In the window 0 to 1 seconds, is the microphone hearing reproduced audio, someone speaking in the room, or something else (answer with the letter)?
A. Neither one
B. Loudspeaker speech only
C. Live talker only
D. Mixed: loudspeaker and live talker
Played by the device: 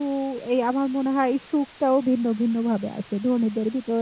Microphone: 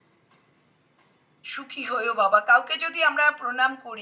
A